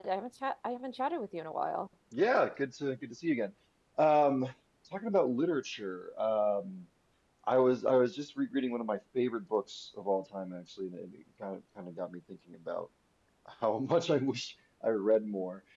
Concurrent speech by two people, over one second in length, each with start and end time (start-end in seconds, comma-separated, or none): none